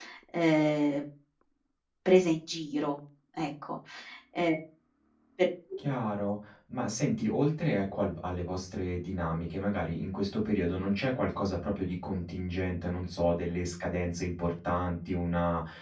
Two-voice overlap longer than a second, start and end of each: none

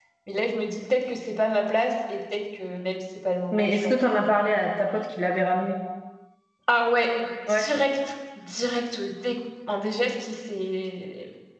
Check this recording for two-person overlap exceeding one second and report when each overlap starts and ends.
none

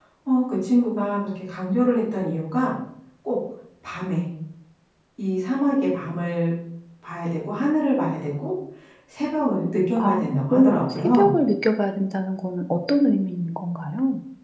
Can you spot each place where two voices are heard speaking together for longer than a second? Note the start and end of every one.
10.0-11.3

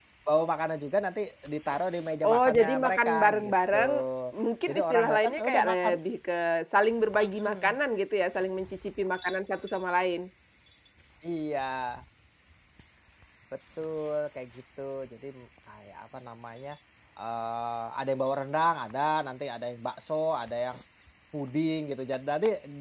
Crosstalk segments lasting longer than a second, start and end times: 2.2-3.8, 4.7-5.9

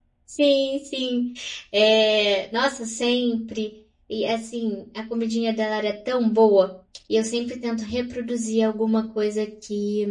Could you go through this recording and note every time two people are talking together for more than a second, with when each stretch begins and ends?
none

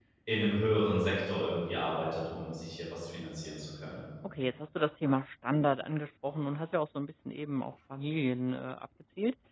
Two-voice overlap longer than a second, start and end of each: none

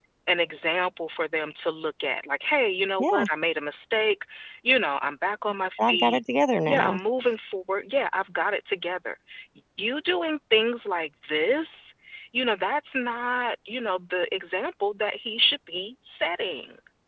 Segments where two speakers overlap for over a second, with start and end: none

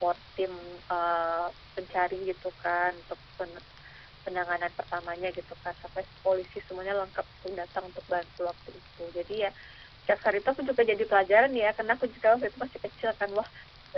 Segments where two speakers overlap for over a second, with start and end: none

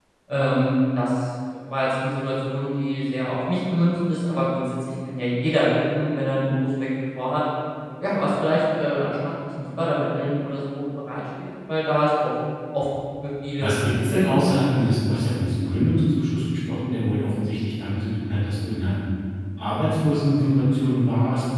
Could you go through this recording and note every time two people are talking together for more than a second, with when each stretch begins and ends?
13.6-14.9

